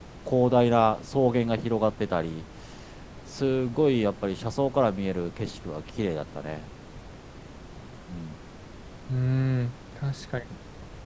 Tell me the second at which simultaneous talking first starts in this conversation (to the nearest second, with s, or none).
none